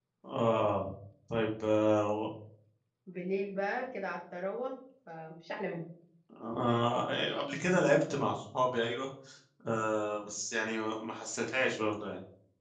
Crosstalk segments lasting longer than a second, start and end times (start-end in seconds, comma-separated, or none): none